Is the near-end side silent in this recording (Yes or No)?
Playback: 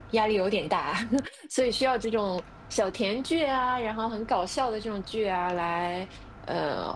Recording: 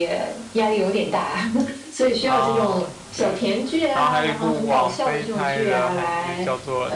No